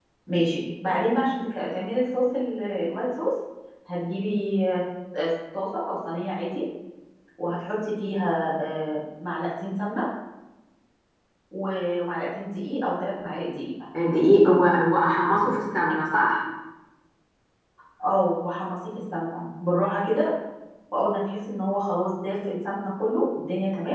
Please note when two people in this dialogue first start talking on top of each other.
none

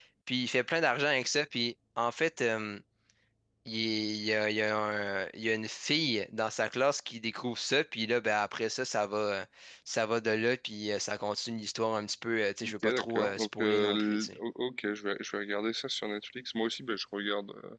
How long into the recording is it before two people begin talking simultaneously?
12.6 s

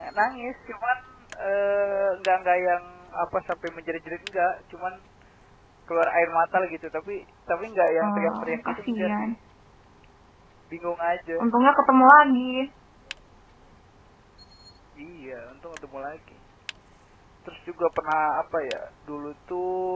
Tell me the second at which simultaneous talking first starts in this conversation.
8.0 s

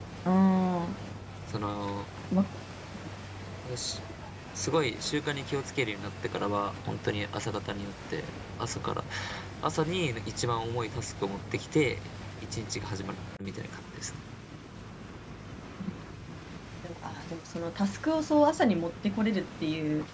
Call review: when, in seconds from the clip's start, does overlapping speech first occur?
none

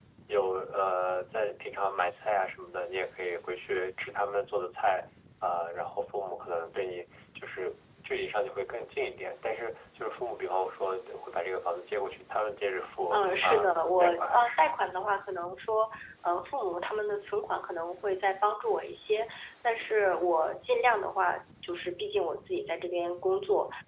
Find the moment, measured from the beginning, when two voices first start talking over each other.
13.1 s

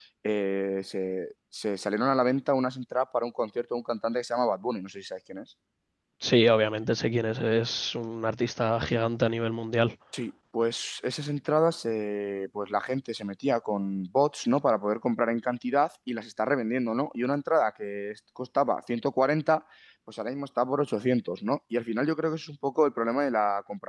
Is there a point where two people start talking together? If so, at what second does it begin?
none

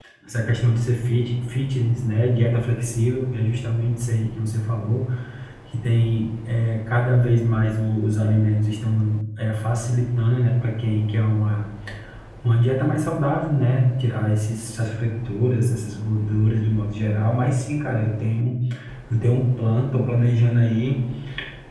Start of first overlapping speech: none

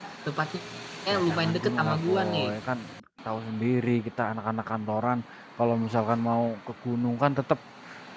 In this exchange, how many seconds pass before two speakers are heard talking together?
1.1 s

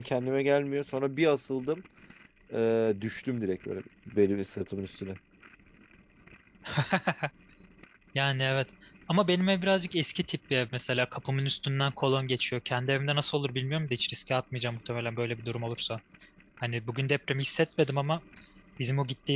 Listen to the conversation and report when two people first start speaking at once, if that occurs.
none

